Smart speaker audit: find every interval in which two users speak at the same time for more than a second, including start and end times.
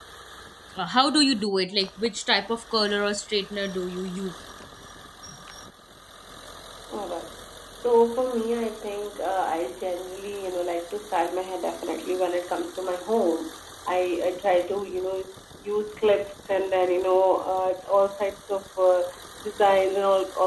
none

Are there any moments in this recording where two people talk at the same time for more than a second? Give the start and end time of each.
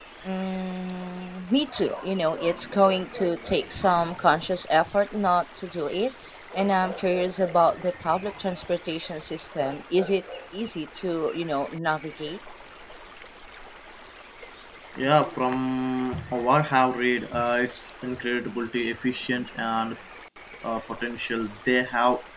none

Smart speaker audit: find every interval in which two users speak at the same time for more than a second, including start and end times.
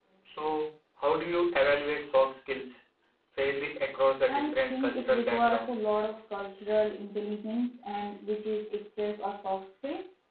4.3-5.8

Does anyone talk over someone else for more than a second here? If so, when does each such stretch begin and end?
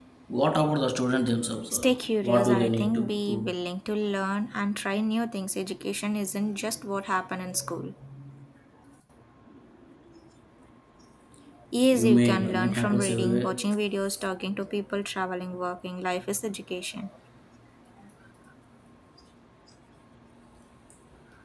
1.7-3.5, 11.9-13.7

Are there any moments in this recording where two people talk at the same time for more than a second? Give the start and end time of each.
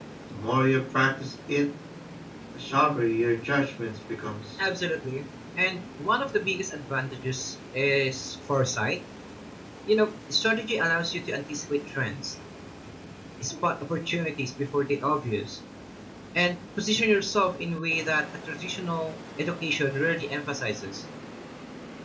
none

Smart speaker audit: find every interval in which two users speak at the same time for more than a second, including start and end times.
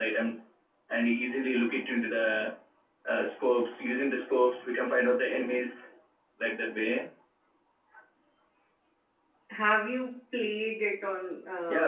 none

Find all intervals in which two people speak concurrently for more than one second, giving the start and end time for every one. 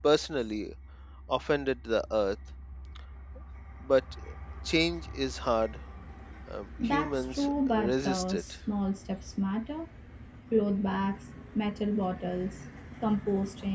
6.8-8.4

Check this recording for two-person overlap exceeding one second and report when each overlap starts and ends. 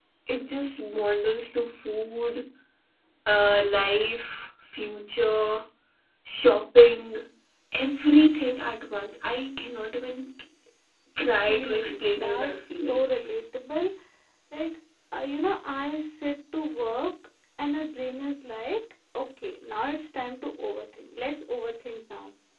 11.5-13.0

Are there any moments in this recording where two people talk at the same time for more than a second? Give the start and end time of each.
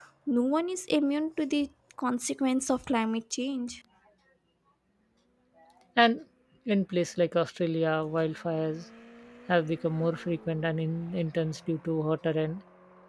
none

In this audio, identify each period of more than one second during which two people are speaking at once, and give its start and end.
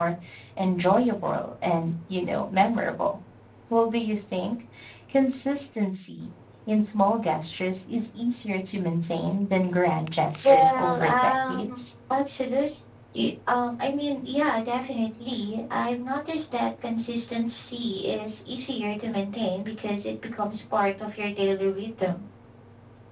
10.4-11.8

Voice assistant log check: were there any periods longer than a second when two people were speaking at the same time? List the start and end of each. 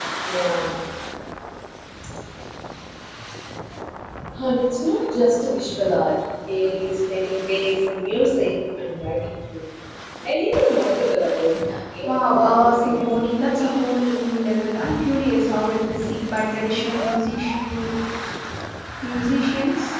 12.0-13.7

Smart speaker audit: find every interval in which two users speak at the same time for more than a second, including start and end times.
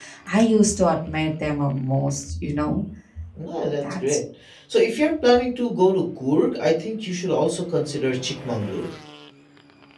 none

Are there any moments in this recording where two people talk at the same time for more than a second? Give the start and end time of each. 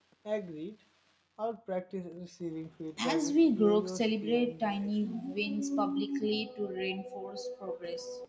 3.0-5.0

